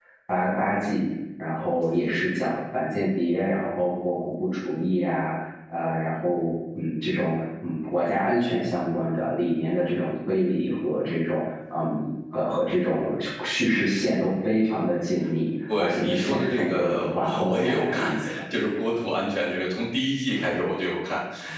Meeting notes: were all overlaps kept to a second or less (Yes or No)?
No